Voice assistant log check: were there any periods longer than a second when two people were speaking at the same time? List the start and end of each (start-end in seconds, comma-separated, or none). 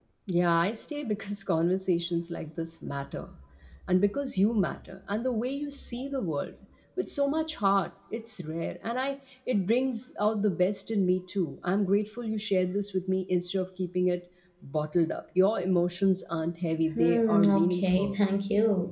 16.9-18.2